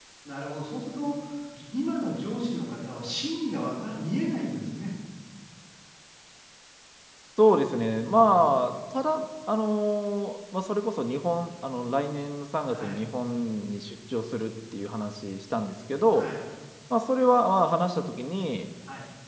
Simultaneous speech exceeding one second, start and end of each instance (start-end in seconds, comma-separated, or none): none